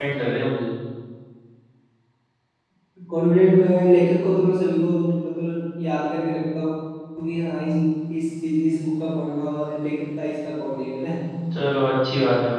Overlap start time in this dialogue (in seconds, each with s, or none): none